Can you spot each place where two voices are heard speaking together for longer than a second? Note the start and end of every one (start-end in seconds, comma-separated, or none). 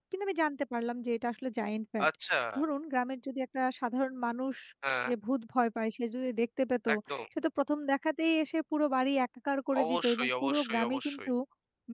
9.8-11.3